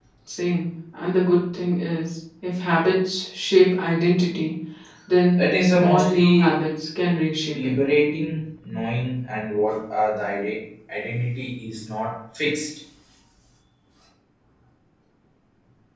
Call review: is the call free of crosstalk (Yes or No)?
No